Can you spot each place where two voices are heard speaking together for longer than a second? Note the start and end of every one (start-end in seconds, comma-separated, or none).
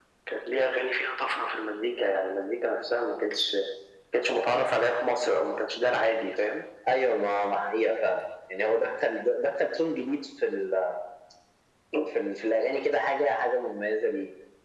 none